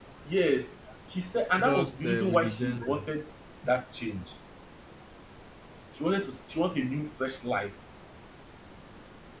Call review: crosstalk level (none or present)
present